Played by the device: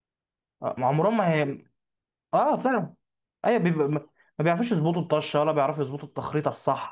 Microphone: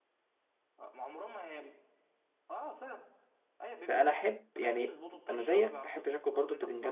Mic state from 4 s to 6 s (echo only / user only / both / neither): both